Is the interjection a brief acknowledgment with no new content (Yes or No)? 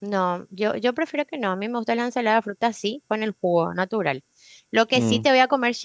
Yes